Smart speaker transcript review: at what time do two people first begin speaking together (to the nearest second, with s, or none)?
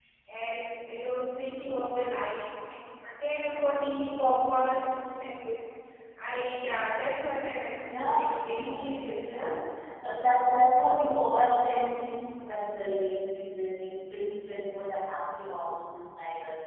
8 s